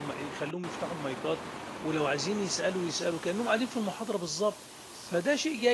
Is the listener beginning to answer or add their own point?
No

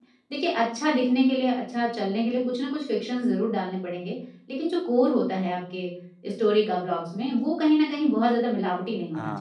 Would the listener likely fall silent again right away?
No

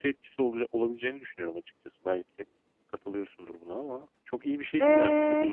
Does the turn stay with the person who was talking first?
No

